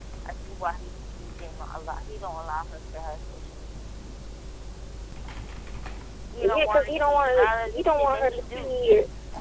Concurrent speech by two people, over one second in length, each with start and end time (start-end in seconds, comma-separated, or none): 6.4-8.7